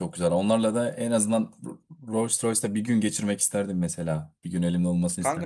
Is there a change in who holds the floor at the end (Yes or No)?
Yes